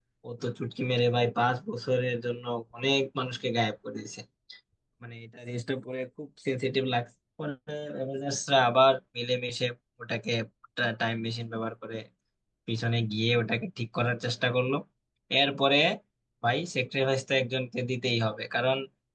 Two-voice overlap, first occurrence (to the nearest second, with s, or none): none